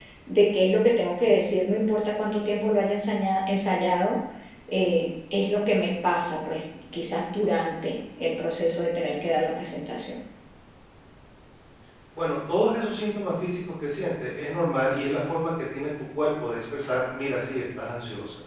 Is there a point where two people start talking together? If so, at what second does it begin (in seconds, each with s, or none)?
none